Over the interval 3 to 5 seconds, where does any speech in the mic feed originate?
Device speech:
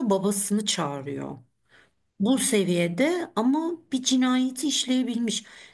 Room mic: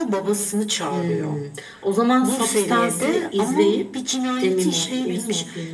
both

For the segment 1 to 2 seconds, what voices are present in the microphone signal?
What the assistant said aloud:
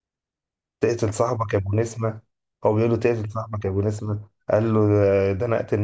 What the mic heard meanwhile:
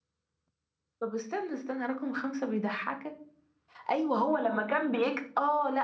user only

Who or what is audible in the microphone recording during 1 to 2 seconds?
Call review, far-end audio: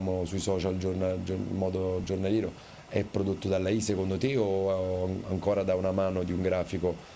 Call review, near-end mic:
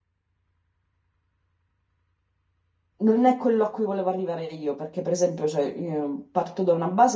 neither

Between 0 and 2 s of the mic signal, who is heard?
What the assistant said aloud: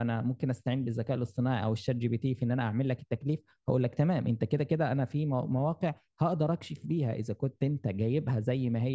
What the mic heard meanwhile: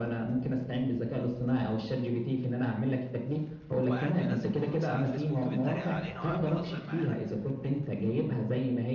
echo only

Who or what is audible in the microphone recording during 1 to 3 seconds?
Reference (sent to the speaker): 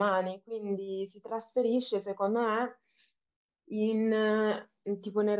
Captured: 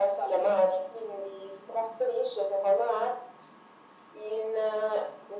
echo only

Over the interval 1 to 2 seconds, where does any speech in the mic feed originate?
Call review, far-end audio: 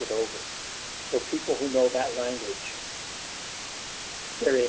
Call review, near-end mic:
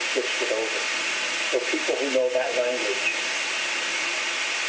echo only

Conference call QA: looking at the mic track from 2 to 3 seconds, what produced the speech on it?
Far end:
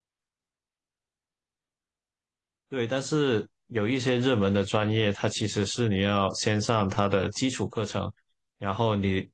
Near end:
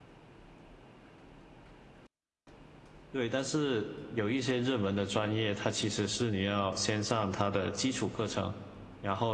neither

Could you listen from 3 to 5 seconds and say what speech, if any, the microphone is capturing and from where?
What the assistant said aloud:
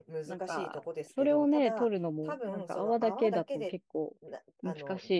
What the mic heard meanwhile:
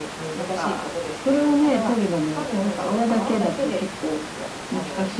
echo only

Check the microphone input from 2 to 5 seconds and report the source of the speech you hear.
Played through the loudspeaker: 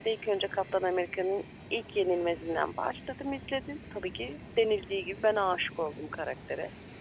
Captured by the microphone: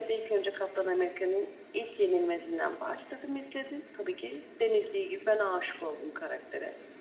echo only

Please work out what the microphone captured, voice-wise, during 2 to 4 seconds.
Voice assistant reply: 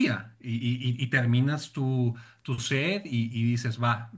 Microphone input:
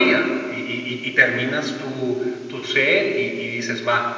echo only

